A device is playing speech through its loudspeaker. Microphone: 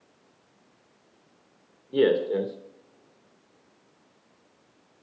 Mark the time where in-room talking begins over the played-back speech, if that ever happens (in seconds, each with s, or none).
1.9 s